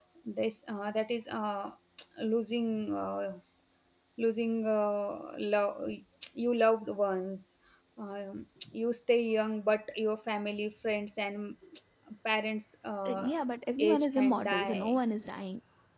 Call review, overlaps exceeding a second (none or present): present